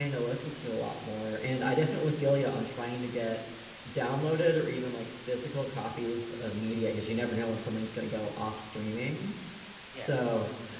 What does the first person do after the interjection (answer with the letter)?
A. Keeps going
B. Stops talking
A